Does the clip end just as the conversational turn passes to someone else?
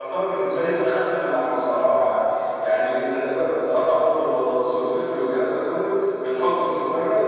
No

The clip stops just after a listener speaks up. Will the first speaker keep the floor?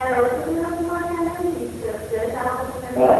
No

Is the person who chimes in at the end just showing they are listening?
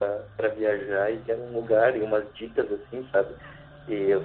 Yes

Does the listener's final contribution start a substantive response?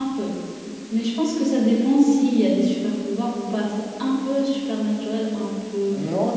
Yes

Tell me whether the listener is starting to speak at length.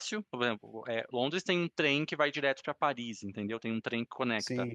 Yes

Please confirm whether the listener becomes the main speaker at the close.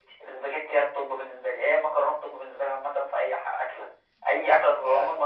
No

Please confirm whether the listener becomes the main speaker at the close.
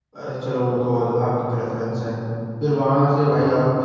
No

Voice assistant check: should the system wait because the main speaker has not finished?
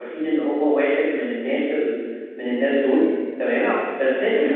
Yes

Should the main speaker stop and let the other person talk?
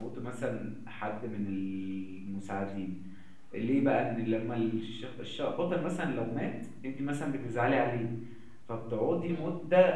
No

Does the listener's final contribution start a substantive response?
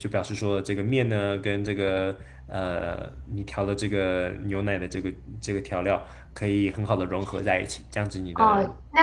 Yes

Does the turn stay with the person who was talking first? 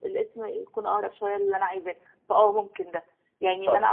Yes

